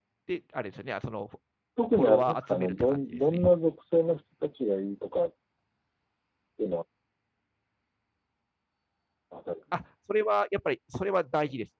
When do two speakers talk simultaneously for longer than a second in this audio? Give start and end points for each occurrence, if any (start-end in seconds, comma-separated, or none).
1.9-3.4